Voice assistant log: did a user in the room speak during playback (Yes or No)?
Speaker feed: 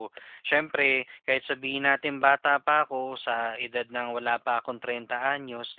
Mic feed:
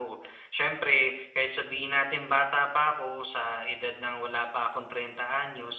No